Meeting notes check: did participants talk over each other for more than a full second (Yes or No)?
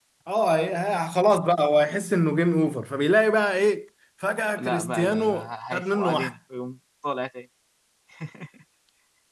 Yes